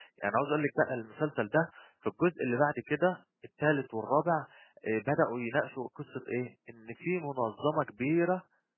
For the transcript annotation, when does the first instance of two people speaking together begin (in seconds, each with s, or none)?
none